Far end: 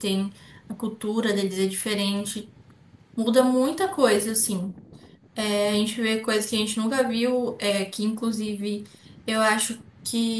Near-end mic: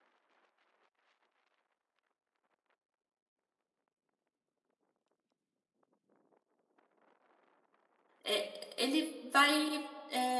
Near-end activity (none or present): present